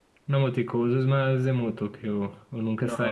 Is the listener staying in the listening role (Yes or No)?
No